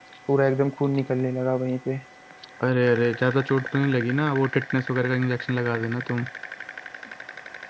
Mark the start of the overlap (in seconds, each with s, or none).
none